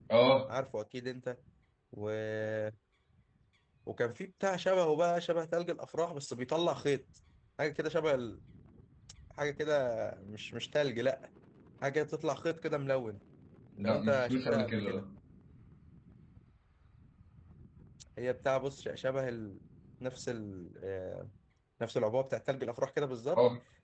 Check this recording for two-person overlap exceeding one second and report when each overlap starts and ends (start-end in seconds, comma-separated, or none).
13.8-15.0